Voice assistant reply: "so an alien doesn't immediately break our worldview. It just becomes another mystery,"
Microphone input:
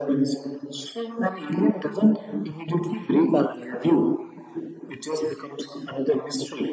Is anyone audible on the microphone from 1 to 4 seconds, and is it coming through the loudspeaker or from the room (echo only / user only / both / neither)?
echo only